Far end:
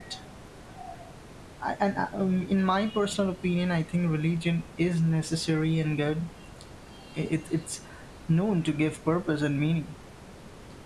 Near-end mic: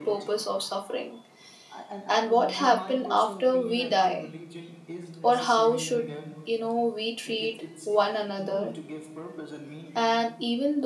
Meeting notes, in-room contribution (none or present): present